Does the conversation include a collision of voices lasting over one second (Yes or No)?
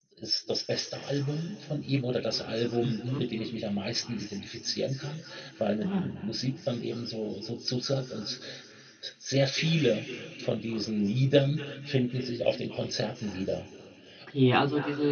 No